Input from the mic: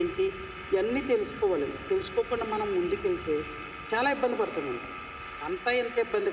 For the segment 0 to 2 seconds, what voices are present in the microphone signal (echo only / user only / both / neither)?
echo only